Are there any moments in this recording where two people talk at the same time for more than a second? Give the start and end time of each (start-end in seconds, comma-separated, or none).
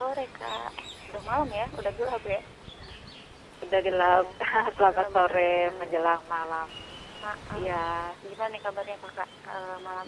4.8-6.2